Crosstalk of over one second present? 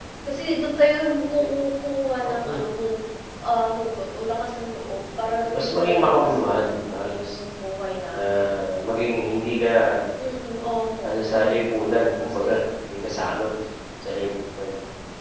Yes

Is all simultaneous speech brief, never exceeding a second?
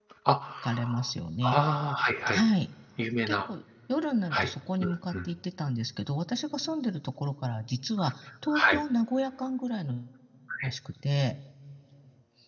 Yes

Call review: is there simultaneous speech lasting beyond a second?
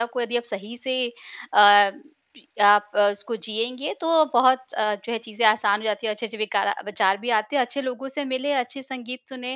No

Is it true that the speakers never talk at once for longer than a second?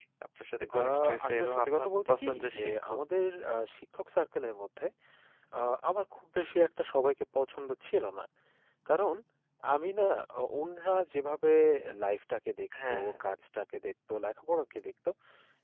No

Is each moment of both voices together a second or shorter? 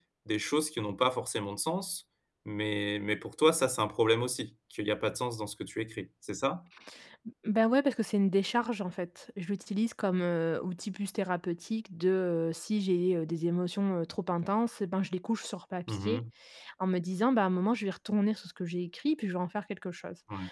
Yes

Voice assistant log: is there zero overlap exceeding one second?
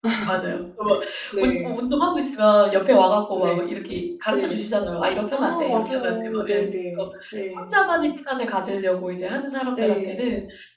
No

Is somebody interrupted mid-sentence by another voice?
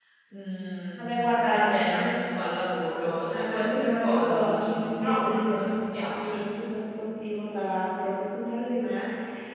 Yes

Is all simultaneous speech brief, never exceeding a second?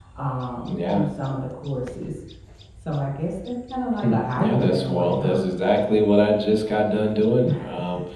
No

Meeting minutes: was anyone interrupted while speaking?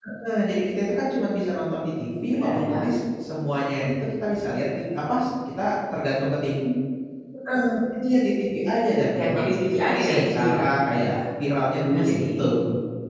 Yes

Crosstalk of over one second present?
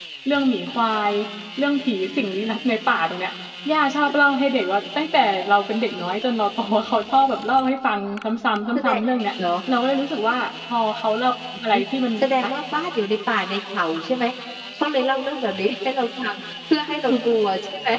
No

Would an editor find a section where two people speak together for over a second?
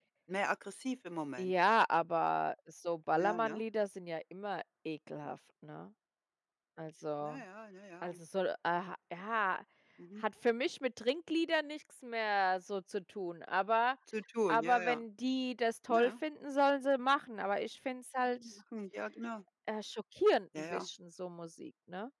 No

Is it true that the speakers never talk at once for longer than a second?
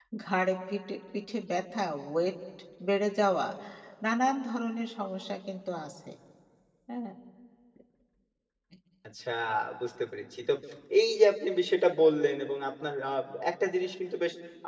Yes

